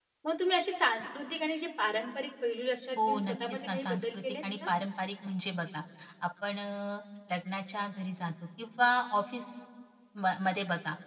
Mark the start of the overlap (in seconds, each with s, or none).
3.0 s